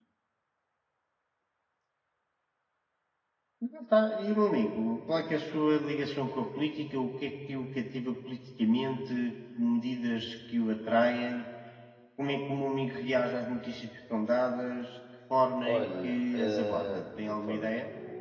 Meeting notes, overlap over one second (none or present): present